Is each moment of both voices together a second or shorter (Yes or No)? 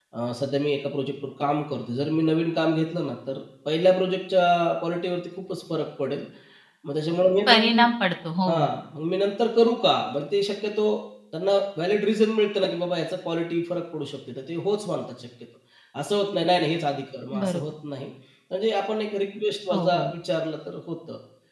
Yes